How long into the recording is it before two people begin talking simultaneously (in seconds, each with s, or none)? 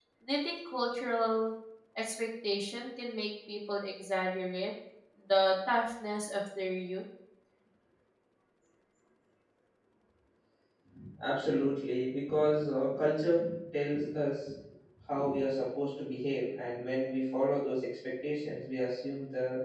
none